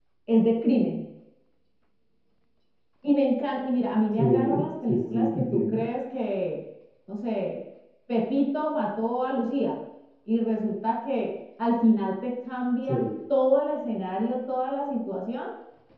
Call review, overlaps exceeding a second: present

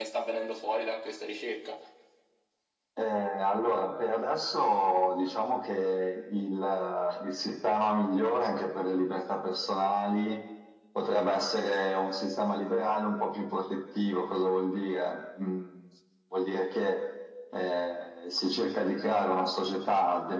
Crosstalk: none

